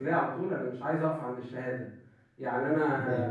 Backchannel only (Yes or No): Yes